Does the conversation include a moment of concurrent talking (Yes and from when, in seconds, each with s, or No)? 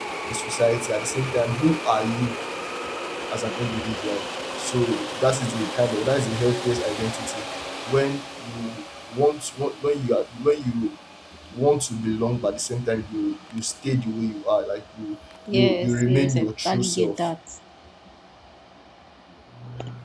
Yes, from 15.5 s